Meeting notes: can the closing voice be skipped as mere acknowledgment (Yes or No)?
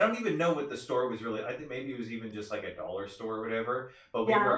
Yes